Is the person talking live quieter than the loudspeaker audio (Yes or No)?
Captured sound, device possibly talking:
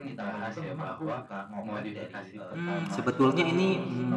No